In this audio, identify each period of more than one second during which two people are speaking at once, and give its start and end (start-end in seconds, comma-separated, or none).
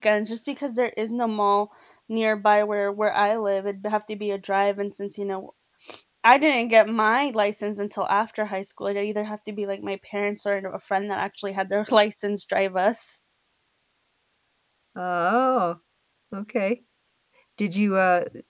none